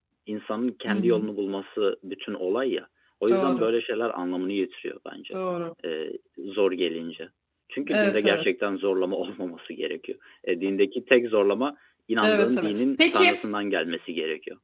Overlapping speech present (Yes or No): Yes